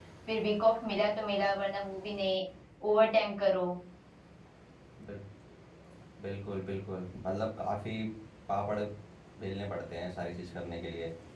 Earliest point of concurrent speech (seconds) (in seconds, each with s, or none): none